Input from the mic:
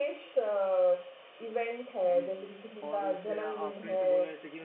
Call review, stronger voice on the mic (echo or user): echo